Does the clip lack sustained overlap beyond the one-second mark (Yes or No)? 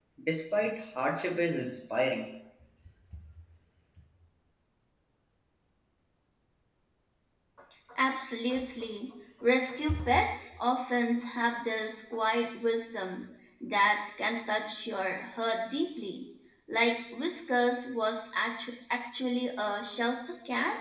Yes